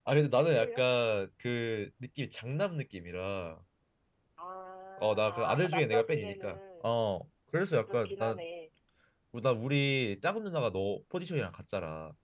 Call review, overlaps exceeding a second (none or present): present